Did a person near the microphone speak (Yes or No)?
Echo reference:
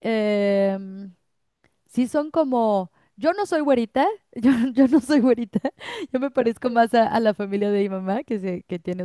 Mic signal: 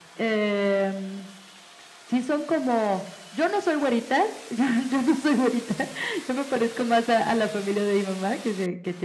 No